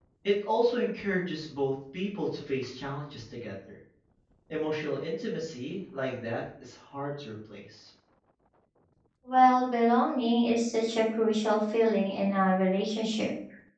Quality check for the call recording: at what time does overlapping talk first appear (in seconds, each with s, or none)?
none